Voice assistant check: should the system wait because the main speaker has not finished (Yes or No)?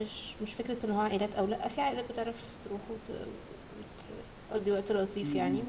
Yes